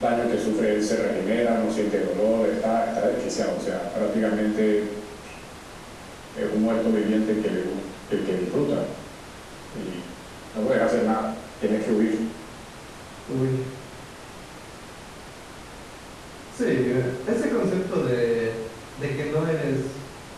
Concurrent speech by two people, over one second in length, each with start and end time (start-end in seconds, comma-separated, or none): none